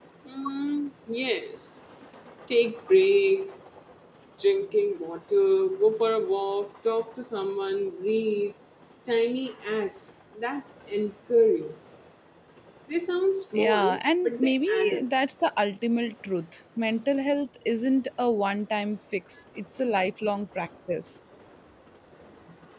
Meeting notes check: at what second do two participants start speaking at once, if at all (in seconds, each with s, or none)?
13.6 s